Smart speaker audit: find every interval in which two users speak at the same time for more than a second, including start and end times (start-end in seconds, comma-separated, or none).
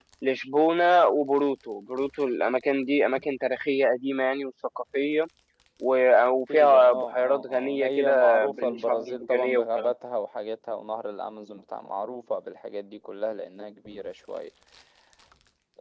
6.5-9.9